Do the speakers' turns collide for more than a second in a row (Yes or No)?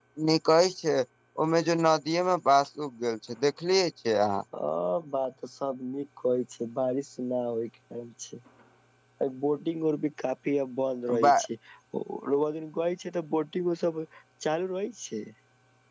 No